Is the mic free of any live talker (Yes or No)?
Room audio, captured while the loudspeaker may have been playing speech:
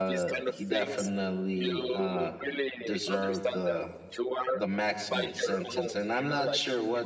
No